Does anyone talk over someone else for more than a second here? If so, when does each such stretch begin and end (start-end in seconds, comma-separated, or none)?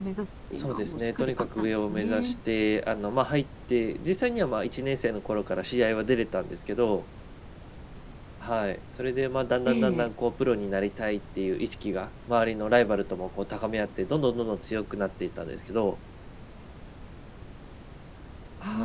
0.5-2.3